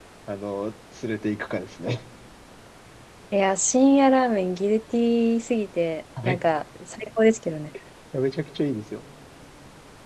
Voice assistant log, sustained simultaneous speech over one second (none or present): none